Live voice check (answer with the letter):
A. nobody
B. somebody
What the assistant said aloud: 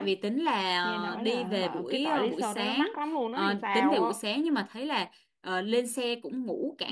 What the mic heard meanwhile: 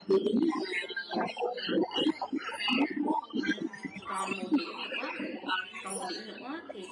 B